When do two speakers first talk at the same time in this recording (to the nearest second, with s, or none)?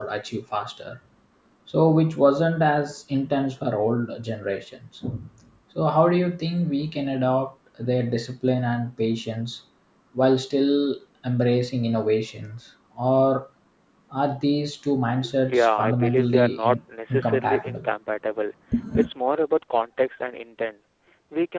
15 s